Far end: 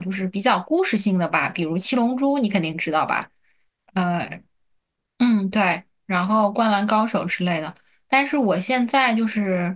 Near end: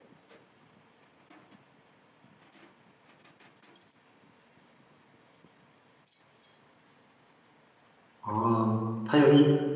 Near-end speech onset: 8.2 s

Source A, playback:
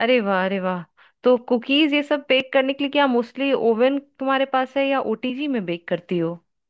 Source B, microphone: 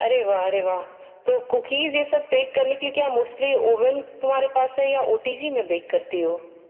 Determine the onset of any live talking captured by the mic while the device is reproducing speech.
none

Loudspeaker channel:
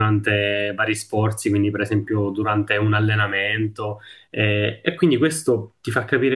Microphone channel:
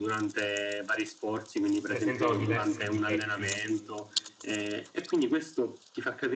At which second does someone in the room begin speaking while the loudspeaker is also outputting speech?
1.8 s

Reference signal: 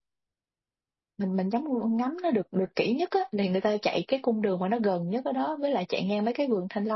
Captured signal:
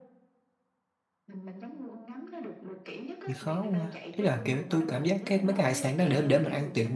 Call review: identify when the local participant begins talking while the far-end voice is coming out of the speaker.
3.2 s

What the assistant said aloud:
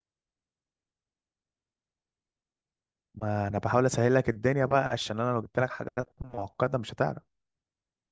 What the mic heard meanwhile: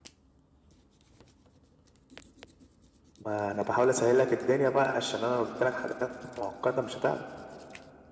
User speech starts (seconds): none

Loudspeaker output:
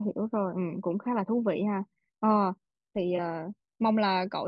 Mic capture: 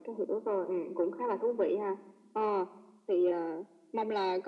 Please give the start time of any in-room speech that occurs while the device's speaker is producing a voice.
none

